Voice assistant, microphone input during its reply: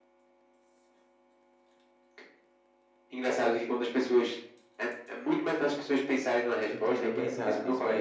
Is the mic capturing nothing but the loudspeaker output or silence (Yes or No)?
No